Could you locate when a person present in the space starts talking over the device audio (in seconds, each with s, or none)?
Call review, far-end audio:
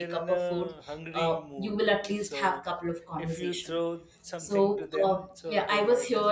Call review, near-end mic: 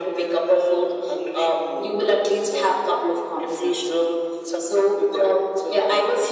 none